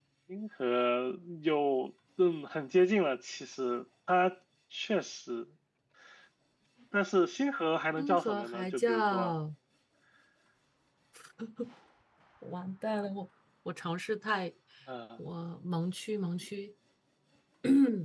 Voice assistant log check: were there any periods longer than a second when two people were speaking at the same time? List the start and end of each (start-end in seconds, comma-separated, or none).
8.0-9.3